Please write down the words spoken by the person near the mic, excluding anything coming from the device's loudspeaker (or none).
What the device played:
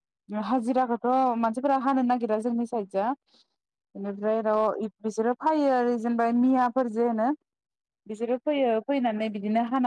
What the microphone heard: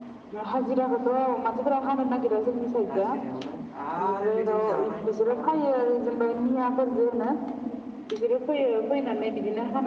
हाजिरायावनो आरो बिथिं जानाय दंबावो।